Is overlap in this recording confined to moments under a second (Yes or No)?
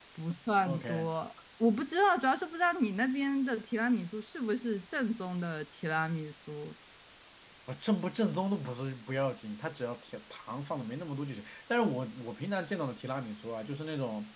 Yes